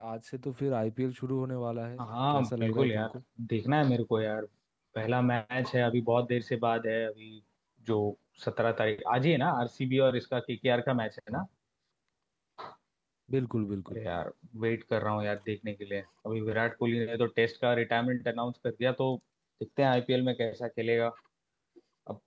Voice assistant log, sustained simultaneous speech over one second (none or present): present